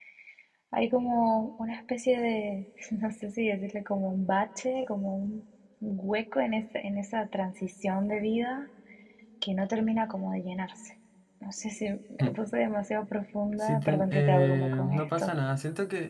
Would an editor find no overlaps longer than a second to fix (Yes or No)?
No